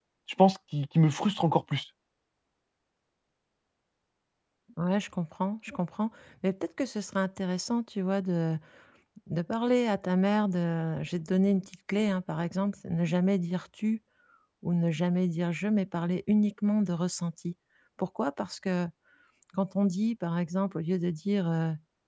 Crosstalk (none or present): none